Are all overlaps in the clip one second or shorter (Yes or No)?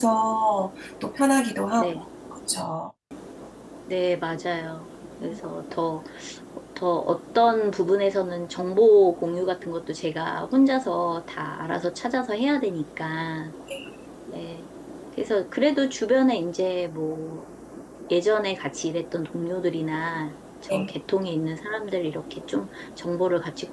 Yes